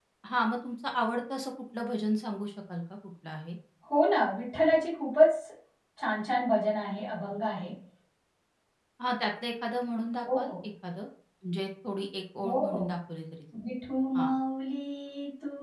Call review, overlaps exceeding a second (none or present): none